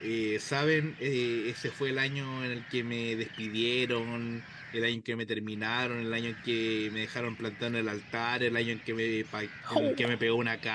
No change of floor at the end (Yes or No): Yes